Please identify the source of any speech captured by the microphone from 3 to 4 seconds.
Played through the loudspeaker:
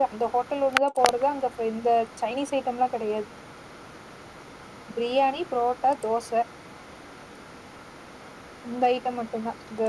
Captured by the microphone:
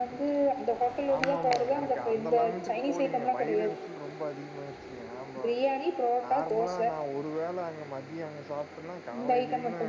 both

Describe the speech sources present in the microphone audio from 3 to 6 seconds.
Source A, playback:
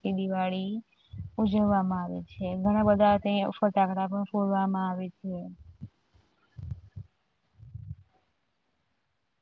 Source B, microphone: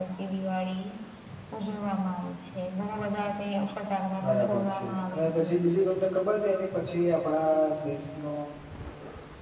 both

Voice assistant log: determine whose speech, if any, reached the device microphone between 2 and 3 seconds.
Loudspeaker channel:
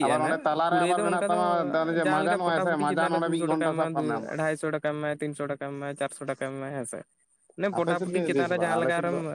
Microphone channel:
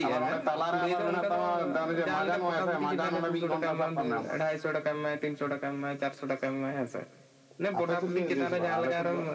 echo only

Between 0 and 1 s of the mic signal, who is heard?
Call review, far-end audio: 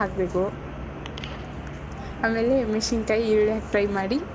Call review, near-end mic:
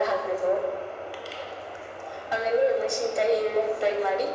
echo only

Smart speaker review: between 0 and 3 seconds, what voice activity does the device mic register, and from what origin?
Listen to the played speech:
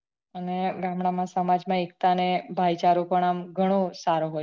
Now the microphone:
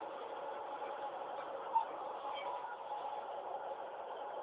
neither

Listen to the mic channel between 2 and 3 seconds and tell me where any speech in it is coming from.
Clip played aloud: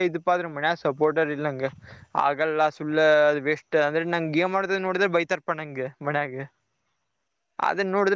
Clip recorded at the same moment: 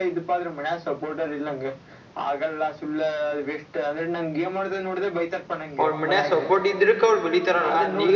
echo only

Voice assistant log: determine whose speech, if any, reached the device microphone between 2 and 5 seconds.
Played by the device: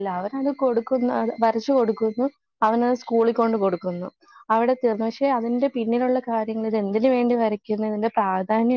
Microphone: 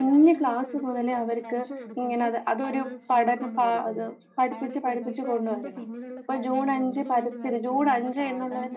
both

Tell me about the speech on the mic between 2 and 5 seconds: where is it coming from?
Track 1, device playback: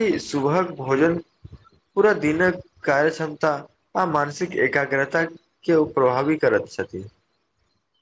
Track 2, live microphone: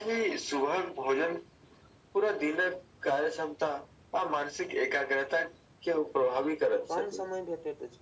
echo only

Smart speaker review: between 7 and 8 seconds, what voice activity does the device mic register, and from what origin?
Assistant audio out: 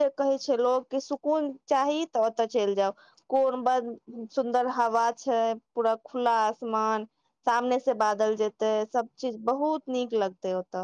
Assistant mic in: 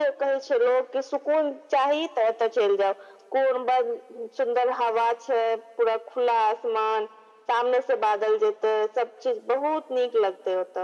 echo only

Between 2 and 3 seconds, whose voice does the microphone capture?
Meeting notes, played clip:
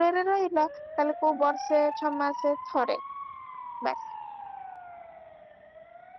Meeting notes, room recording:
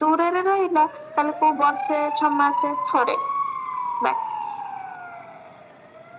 echo only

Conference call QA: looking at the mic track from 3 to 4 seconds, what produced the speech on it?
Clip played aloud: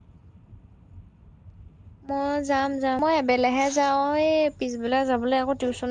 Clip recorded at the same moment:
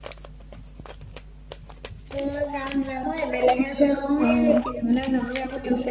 echo only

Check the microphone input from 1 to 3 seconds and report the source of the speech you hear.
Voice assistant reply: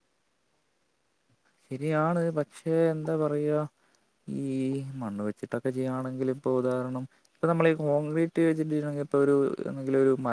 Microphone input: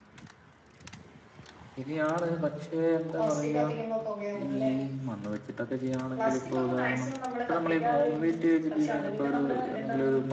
echo only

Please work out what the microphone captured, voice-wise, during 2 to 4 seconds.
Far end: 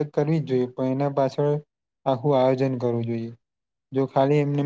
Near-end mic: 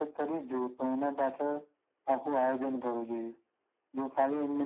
echo only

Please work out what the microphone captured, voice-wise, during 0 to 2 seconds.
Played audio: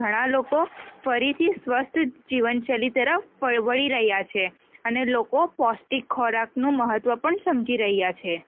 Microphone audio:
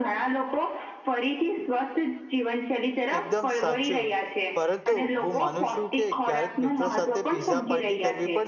echo only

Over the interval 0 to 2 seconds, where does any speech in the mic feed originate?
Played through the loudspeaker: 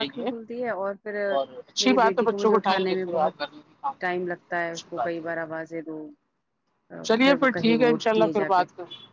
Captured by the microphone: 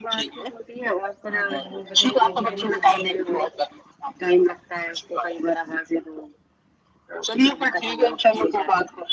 both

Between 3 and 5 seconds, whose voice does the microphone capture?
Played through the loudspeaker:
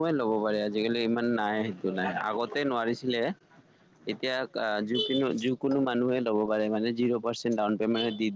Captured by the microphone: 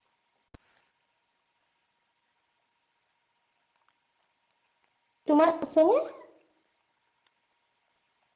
neither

